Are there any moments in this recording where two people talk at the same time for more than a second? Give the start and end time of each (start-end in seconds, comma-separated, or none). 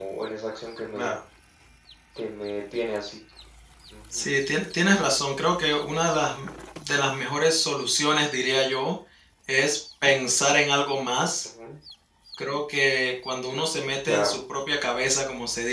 none